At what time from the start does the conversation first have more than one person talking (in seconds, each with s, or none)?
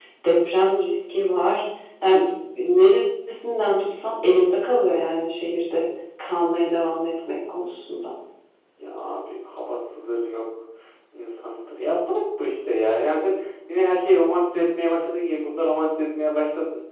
none